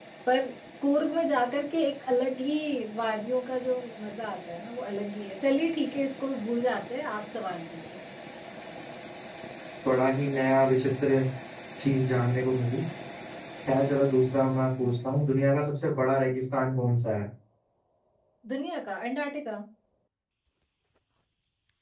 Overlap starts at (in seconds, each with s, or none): none